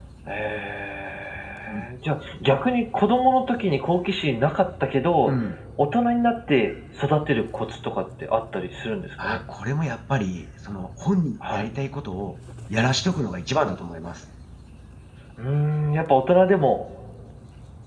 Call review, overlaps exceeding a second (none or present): none